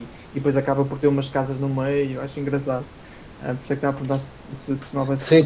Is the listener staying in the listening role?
No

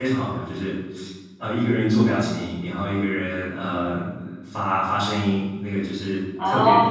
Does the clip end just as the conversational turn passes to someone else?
Yes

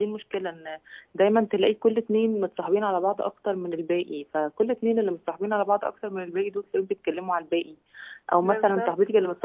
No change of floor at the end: Yes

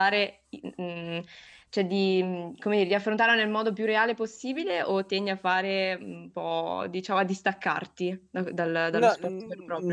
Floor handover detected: Yes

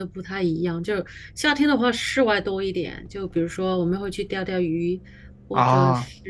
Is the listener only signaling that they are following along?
Yes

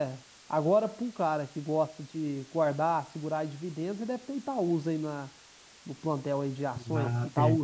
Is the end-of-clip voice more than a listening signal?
Yes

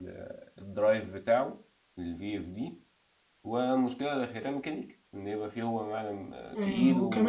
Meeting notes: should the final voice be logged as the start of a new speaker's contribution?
Yes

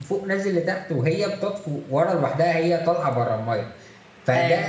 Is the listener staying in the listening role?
Yes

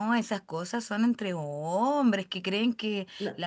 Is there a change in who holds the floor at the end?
No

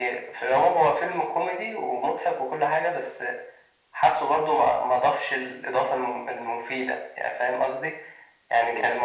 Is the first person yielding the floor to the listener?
No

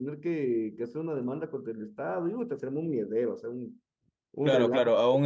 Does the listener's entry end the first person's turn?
Yes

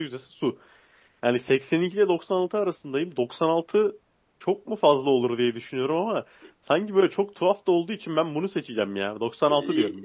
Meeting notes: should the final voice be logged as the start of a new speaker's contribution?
Yes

